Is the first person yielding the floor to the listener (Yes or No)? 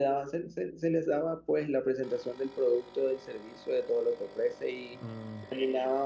No